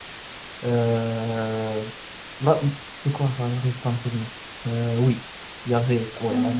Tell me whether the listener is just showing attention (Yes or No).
Yes